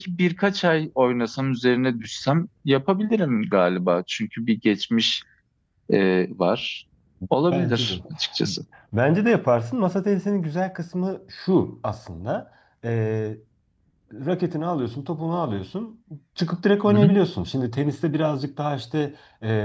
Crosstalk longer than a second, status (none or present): none